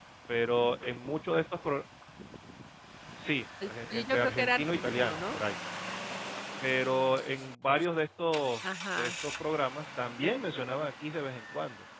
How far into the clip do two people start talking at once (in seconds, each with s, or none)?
3.6 s